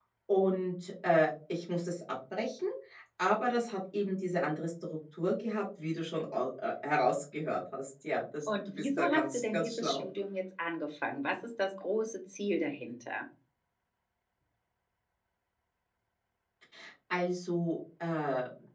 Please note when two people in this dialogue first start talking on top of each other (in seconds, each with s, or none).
8.5 s